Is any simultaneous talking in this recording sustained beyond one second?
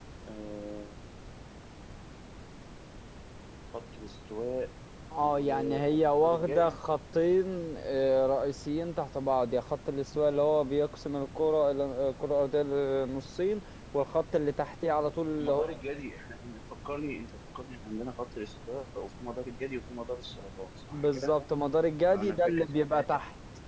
Yes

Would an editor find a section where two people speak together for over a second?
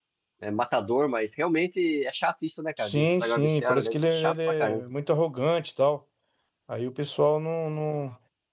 Yes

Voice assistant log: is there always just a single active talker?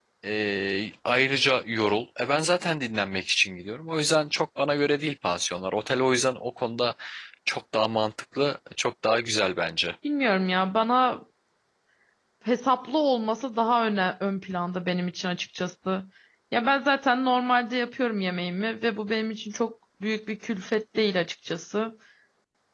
Yes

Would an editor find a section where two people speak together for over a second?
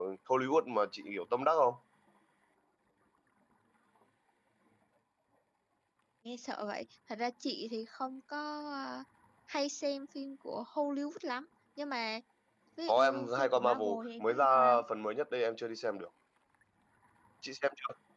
Yes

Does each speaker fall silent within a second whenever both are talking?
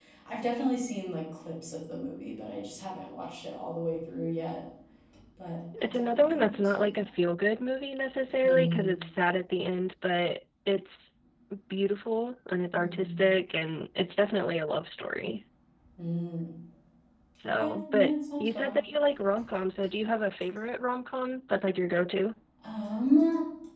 No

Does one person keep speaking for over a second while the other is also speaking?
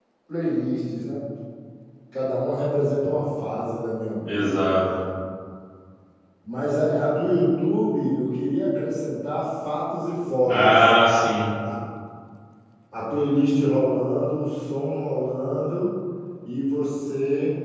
No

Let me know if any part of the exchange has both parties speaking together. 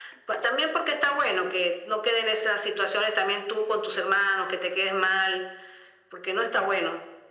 No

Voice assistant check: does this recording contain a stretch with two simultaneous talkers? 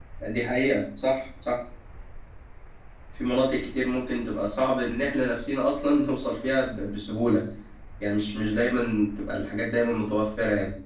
No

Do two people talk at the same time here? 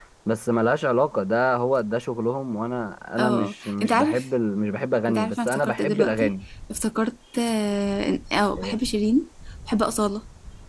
Yes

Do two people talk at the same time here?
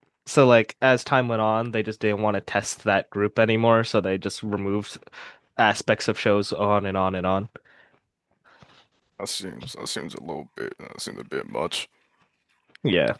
No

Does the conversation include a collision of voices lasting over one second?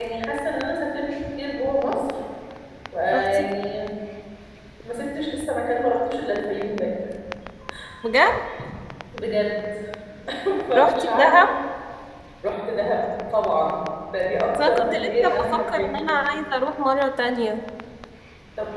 Yes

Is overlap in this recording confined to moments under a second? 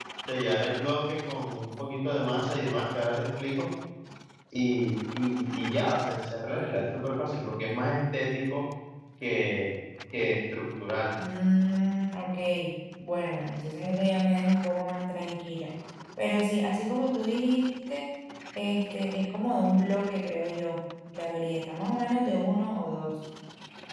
Yes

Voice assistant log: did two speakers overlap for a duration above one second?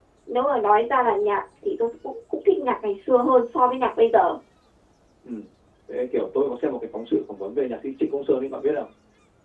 No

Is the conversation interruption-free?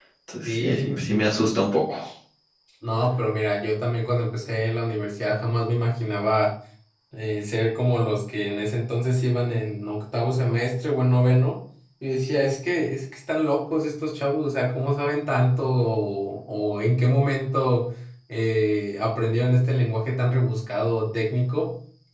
No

